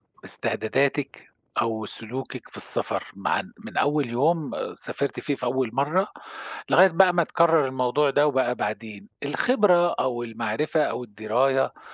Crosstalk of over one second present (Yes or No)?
No